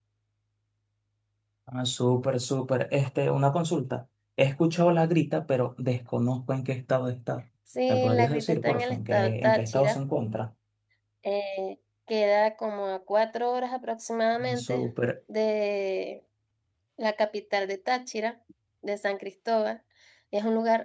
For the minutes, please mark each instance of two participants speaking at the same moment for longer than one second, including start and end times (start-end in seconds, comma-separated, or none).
7.9-10.0